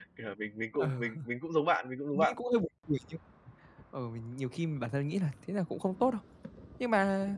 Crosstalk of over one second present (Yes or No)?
No